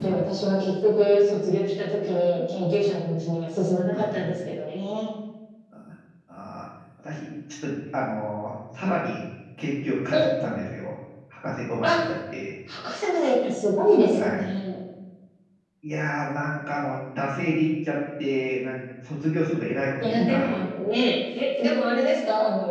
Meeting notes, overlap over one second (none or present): none